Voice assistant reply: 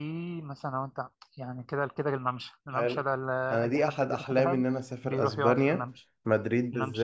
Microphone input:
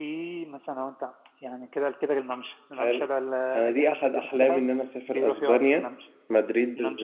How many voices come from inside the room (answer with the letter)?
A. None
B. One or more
A